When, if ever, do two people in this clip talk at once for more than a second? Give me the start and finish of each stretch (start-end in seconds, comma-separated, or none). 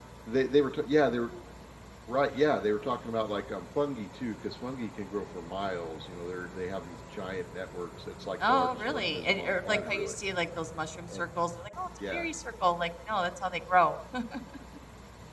8.5-10.2